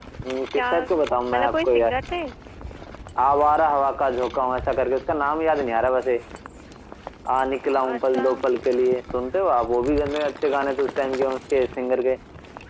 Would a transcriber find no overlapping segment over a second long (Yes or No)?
No